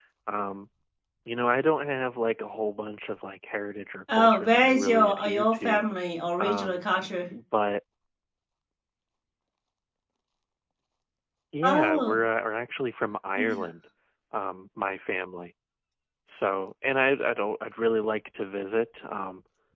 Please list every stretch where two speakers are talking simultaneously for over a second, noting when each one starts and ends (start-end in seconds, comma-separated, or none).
4.1-5.8